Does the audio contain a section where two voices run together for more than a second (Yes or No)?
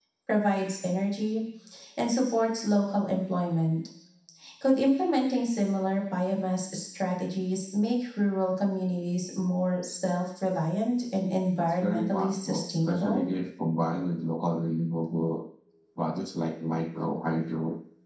Yes